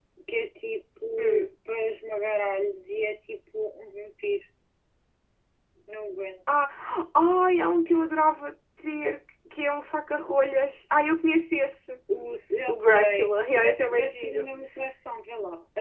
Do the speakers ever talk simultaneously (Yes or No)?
Yes